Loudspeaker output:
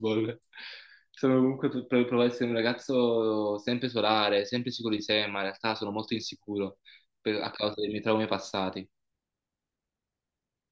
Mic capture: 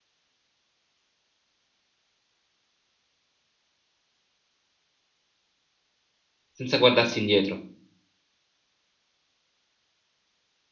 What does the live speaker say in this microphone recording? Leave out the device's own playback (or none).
senza guardarsi indietro,